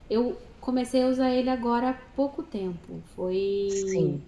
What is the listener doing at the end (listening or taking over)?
listening